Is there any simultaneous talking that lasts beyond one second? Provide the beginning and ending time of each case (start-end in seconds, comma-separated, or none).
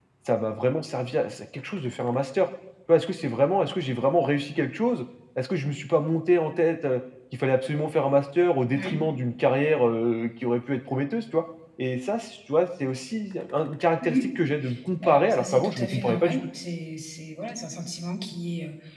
15.0-16.4